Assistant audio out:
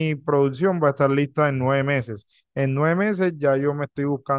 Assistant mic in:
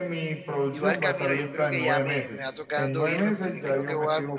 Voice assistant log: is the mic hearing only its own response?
No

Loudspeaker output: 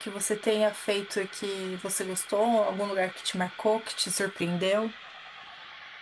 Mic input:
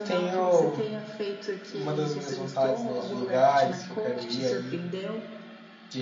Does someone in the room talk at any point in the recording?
Yes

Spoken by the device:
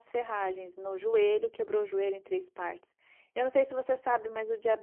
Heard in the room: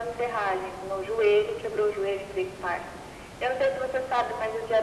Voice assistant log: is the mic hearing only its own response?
Yes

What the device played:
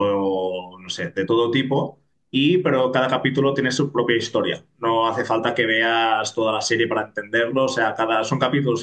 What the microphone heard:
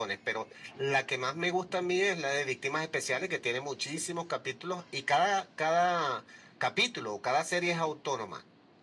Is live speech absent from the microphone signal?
No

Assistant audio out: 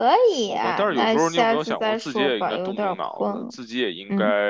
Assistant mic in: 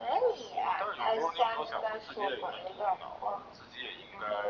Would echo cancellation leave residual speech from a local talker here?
No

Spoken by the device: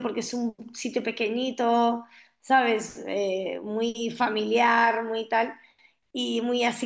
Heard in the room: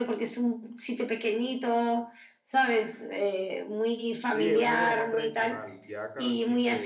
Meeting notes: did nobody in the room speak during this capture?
No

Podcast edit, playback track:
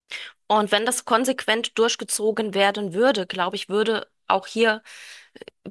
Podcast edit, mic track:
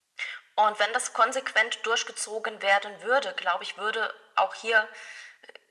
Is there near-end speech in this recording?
No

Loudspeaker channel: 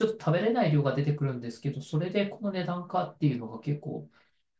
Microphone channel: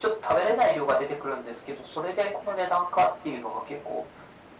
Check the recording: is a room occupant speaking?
No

